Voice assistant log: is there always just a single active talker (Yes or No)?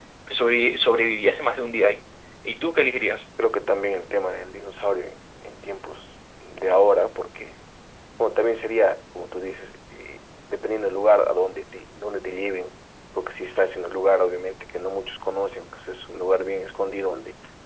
Yes